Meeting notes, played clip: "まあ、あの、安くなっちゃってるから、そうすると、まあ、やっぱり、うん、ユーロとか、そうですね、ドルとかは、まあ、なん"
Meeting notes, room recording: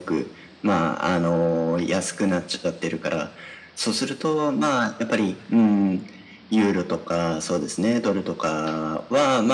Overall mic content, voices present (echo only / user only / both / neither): echo only